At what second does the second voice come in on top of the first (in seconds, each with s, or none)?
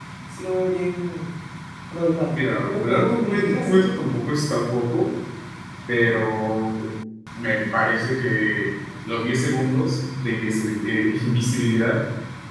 2.3 s